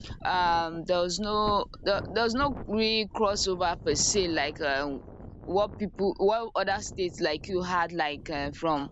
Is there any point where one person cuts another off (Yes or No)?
No